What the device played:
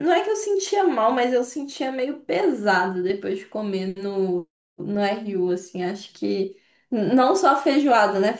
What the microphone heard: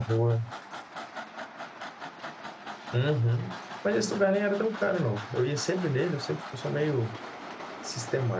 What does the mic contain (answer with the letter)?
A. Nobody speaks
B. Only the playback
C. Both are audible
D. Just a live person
D